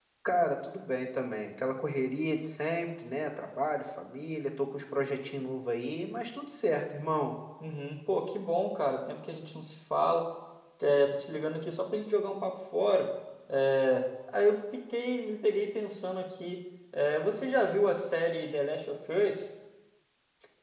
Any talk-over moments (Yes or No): No